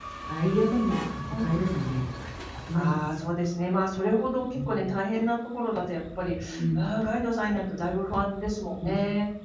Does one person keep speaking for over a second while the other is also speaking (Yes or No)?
No